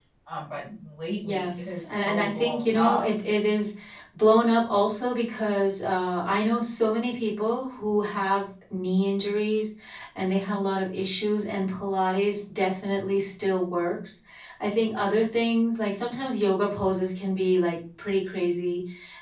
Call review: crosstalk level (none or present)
present